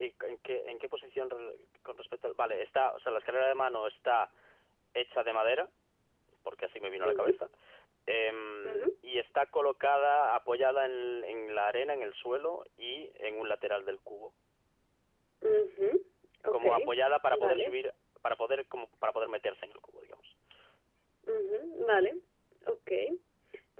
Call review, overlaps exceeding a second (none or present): none